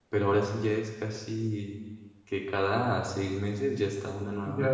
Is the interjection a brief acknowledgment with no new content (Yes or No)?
No